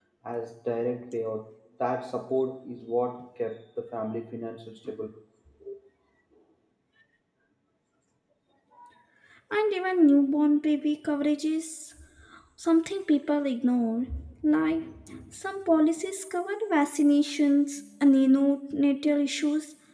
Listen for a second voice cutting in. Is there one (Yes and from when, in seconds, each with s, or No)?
No